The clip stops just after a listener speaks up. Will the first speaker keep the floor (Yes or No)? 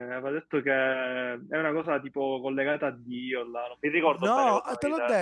No